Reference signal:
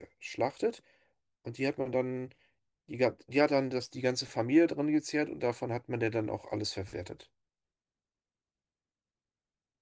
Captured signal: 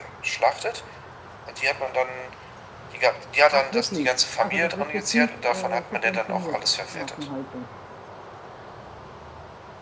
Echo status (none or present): present